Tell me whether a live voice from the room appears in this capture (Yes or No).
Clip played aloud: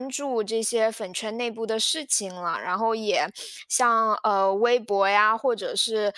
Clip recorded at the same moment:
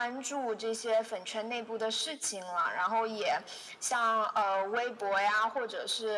No